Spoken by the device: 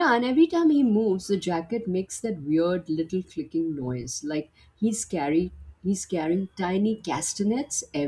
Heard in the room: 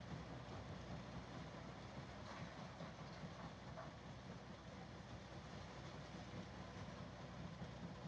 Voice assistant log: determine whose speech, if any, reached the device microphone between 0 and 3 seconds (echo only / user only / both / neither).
neither